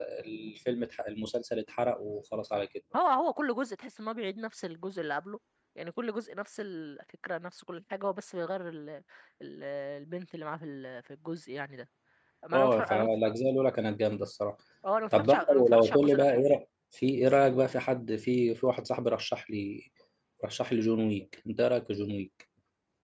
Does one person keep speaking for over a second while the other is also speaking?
Yes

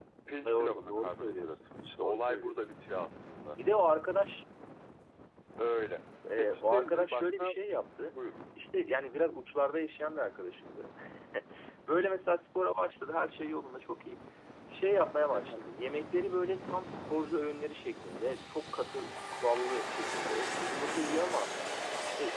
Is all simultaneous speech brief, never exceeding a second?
No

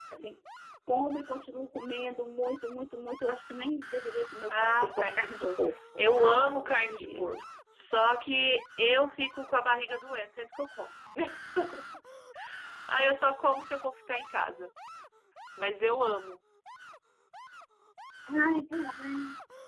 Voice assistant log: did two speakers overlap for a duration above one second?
Yes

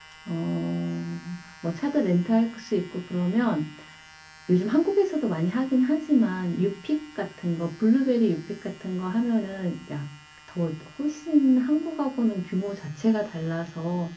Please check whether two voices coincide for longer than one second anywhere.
No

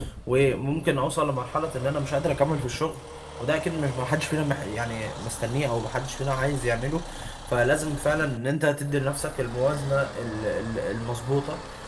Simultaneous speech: No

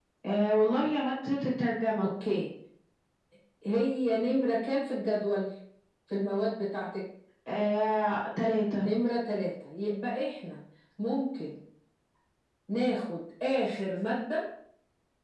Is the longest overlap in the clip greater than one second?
No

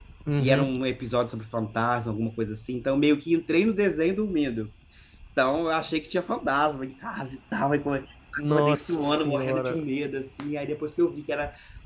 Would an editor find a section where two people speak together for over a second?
Yes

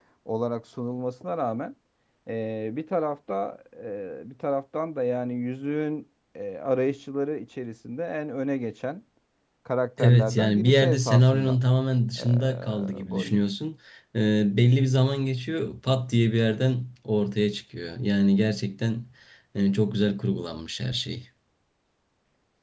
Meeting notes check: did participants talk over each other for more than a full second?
Yes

